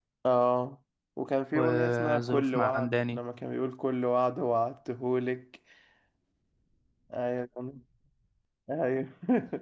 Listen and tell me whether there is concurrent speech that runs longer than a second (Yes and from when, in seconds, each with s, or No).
Yes, from 1.5 s